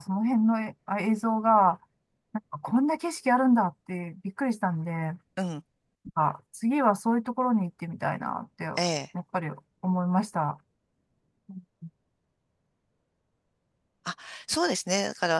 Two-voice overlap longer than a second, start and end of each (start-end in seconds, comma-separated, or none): none